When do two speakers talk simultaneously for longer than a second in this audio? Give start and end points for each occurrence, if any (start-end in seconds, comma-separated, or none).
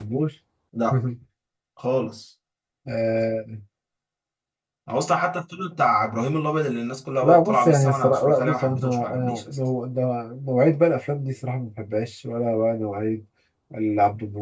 7.2-9.6